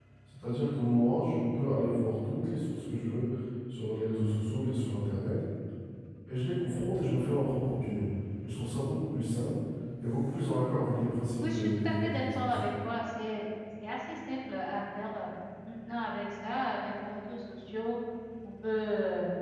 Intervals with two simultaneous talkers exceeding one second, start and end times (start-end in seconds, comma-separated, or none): 11.4-12.6